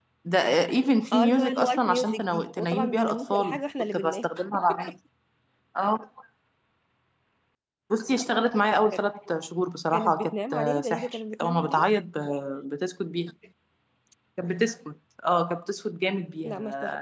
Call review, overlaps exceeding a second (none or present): present